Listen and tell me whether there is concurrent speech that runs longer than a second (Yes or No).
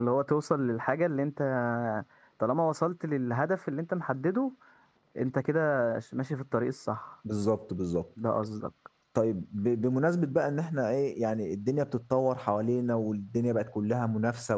No